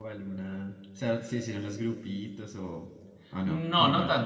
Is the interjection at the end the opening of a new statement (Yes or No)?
Yes